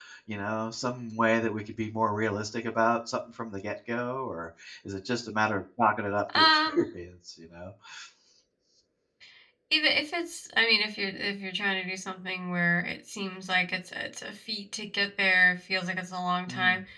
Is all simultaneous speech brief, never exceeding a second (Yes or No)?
Yes